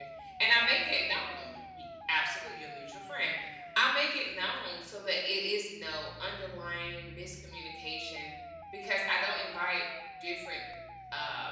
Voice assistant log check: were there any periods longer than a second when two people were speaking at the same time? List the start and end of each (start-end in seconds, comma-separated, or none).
none